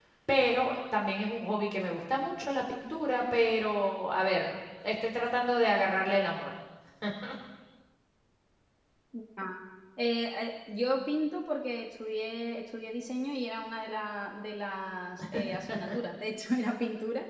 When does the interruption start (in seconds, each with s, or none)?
none